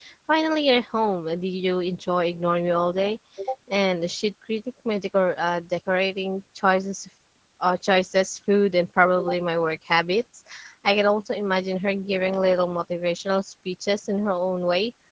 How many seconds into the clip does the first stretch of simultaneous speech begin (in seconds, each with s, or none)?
none